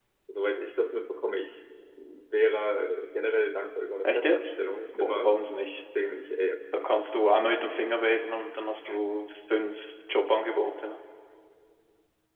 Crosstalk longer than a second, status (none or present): none